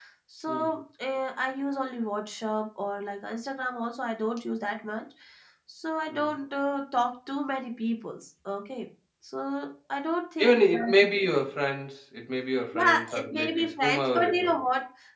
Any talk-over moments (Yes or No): Yes